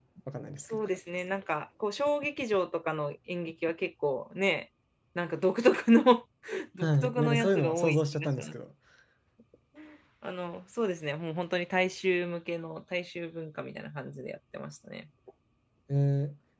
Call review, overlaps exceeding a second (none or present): present